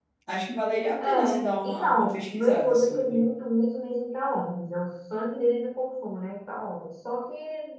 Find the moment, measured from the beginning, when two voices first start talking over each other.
1.0 s

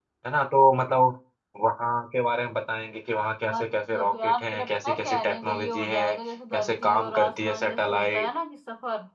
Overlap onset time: 3.5 s

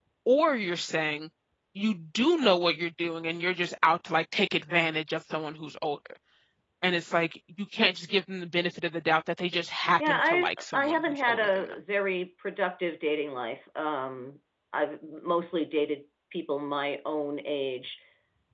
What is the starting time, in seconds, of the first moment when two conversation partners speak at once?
10.0 s

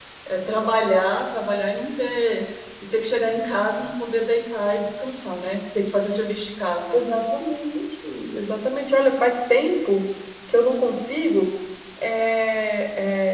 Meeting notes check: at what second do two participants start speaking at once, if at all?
none

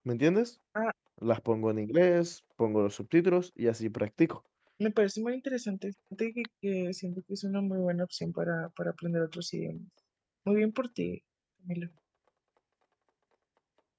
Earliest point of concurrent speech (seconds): none

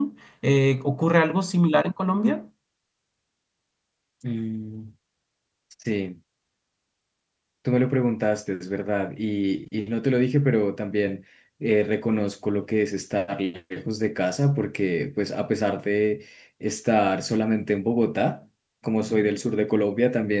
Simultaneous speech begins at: none

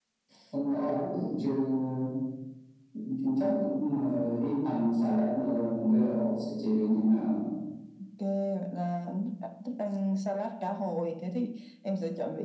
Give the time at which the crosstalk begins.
none

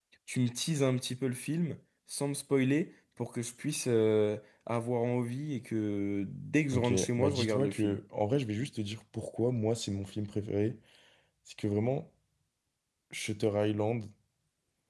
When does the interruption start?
6.7 s

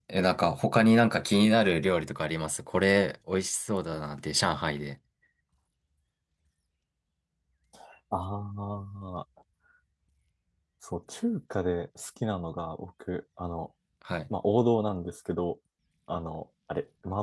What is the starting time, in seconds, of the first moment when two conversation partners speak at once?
none

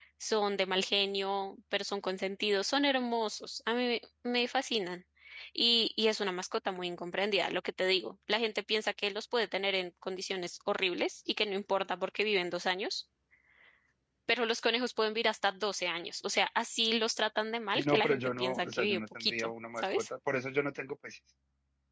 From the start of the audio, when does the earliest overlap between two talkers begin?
17.8 s

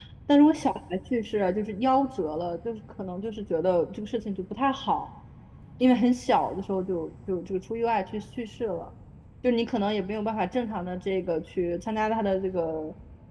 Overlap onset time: none

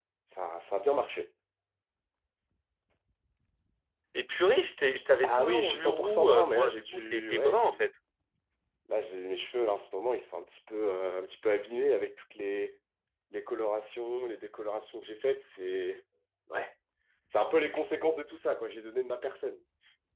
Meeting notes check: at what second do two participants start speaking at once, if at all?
5.2 s

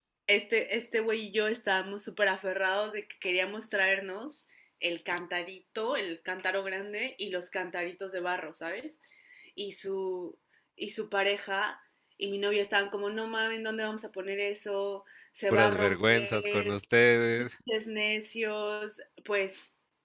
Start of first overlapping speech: 15.5 s

